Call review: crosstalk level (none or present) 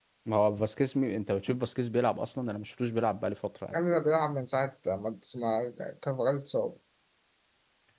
none